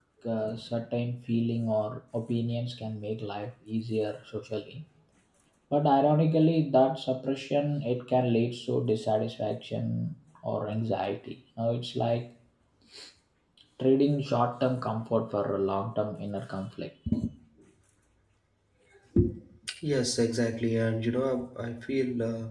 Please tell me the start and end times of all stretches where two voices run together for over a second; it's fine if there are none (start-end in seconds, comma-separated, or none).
none